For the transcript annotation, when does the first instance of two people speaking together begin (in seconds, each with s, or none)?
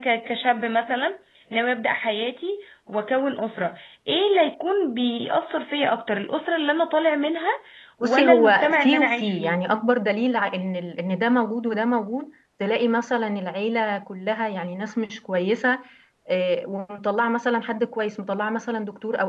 8.0 s